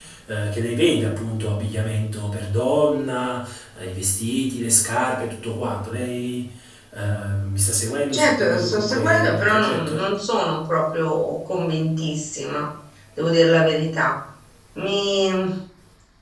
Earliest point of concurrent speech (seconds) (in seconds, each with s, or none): 8.1 s